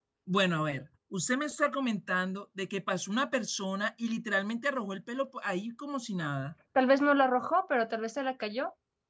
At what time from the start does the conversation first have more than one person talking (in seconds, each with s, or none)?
none